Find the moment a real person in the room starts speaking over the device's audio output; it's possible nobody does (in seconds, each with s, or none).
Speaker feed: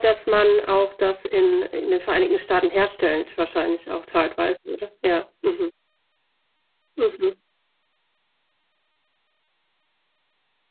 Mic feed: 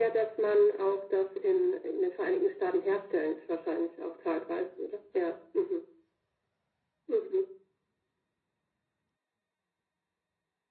none